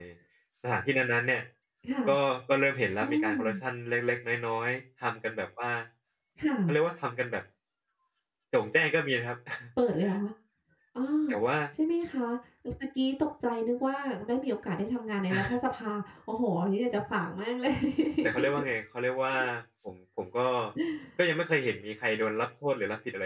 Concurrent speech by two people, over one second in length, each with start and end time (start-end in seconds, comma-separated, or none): none